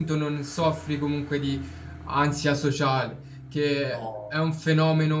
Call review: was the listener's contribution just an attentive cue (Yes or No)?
Yes